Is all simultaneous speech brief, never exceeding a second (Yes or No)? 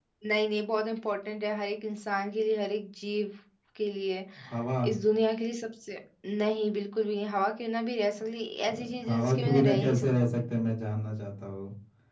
No